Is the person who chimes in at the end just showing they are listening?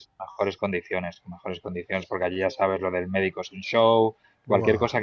Yes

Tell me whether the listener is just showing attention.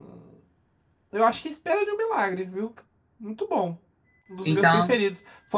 Yes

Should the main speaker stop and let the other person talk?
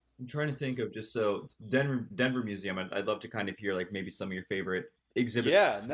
Yes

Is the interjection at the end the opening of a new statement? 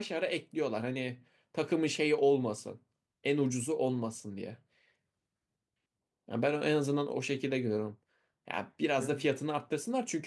No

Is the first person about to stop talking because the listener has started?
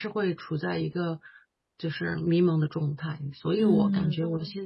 No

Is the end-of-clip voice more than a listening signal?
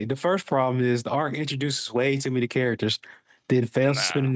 No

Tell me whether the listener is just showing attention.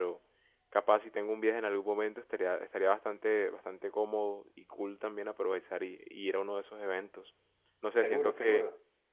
Yes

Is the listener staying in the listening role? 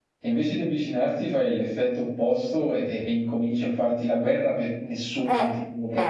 No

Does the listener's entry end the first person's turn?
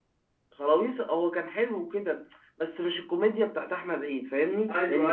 Yes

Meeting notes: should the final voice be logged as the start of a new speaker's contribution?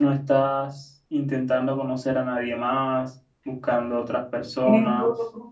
Yes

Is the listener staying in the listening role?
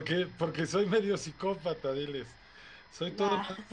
Yes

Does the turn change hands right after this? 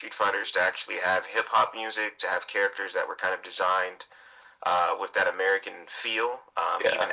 No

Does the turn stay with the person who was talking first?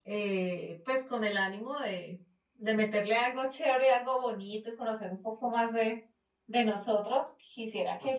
Yes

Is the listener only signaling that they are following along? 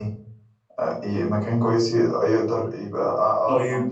No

